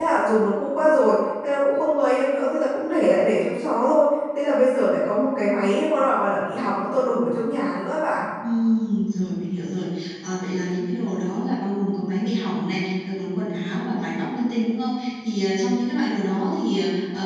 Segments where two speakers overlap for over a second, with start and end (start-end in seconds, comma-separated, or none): none